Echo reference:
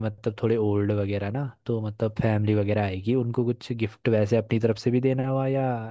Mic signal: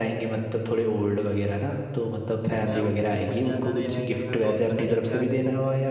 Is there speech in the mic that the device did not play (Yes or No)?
Yes